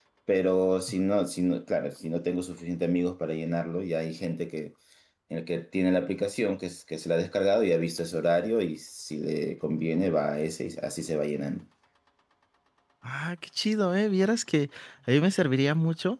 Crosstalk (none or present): none